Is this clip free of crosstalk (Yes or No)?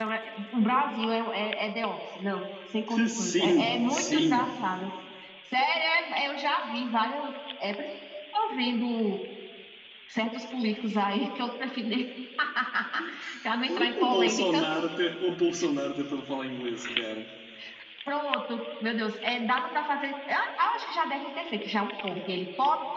No